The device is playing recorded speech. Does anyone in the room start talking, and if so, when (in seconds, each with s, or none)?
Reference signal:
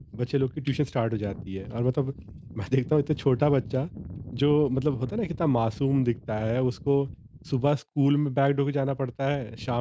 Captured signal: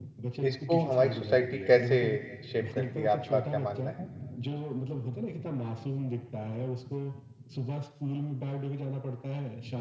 0.5 s